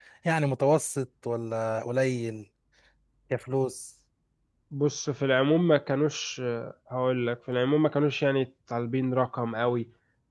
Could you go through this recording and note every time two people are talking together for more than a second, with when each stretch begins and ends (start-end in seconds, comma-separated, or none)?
none